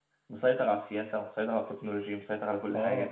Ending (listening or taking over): taking over